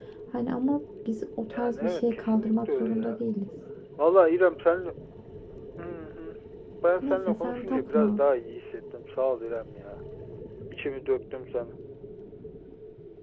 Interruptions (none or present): present